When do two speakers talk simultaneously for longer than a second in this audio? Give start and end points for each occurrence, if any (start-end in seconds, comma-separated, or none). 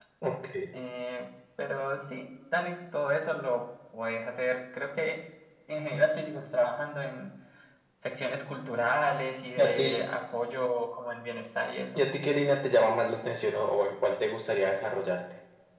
none